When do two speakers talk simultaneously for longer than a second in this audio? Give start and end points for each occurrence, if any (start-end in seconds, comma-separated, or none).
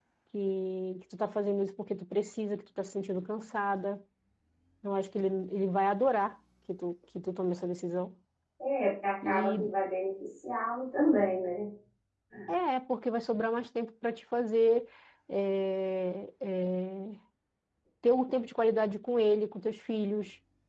none